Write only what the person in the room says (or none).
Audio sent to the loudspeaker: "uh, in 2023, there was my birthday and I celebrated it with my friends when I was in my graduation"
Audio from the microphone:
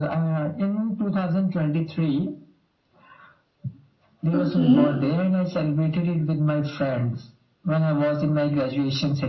Okay,